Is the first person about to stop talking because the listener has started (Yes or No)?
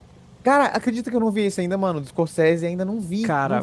Yes